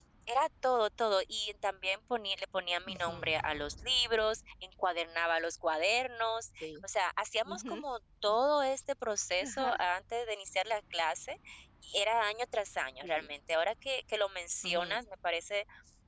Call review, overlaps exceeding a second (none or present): none